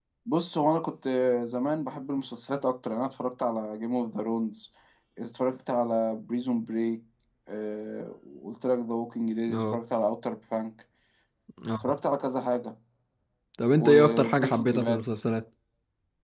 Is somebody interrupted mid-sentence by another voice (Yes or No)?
Yes